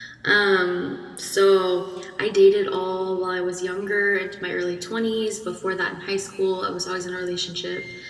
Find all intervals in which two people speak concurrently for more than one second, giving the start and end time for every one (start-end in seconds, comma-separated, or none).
none